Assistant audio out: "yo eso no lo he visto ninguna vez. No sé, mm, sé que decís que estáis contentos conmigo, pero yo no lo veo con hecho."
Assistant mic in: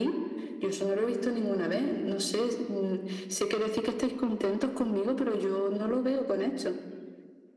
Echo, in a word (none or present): present